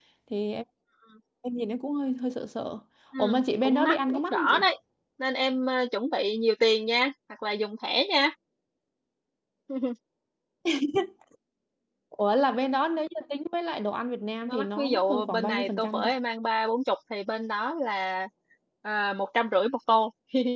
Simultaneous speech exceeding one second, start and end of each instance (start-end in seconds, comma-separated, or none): 3.2-4.7, 14.5-16.1